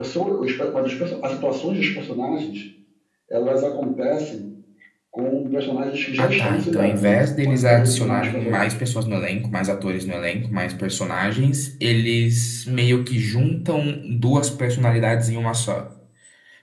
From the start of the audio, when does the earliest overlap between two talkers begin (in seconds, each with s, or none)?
6.2 s